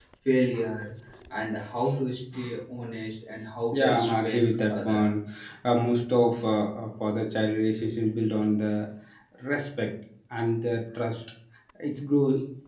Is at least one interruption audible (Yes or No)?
Yes